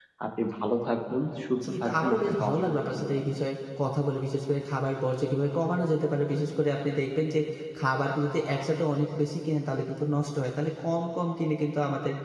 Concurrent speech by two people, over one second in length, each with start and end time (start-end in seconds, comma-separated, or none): 1.9-3.1